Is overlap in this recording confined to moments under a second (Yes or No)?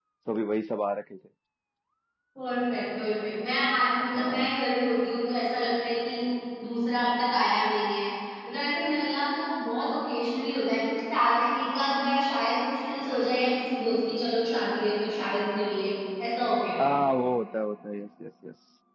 Yes